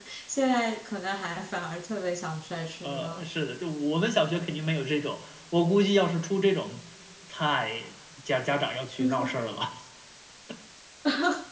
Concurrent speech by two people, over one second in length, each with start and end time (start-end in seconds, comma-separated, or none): none